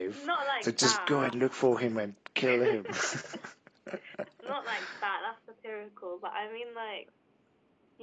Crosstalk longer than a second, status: present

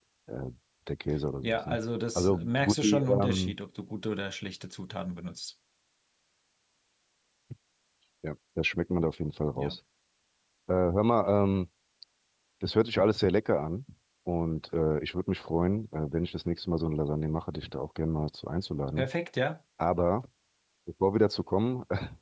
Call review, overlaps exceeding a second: present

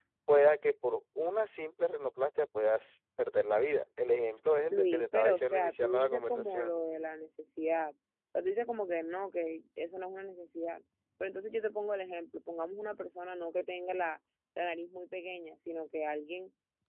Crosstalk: present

